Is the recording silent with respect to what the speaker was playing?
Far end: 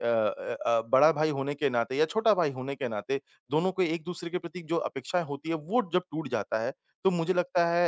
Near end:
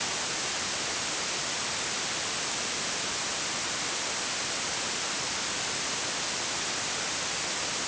Yes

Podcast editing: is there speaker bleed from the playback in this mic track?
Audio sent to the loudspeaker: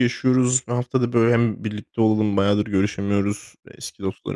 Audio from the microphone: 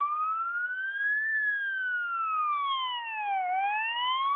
No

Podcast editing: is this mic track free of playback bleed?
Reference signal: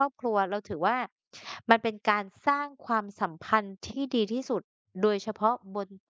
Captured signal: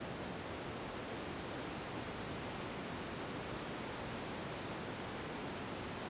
Yes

